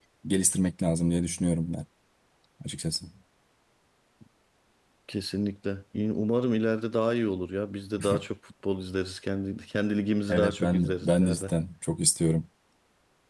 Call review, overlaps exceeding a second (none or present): present